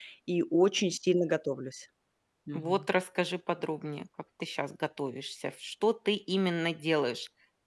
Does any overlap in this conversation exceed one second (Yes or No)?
No